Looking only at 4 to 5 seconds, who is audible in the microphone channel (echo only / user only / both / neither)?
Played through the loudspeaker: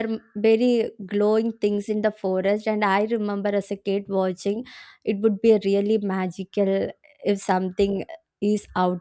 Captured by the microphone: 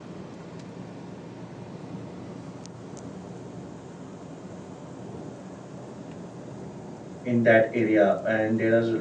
neither